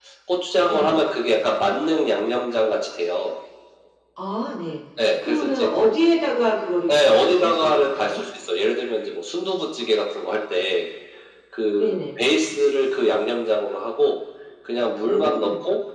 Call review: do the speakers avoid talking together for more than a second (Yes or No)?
No